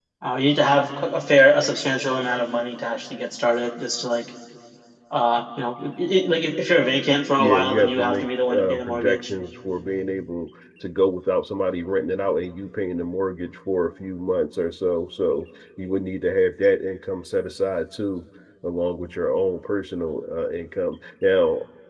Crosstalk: present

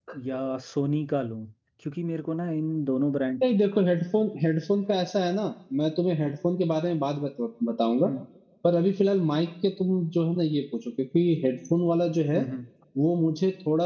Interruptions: none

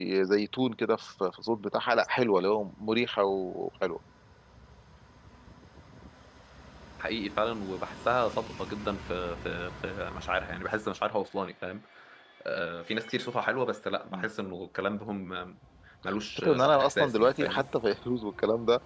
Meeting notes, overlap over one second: present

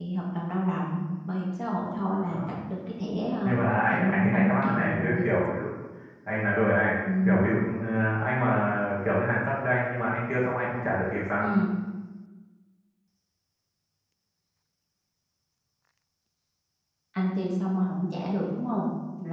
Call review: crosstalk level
present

